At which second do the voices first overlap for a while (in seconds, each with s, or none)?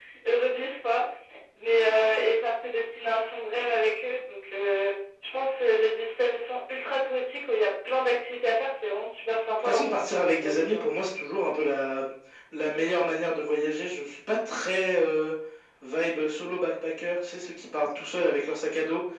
9.6 s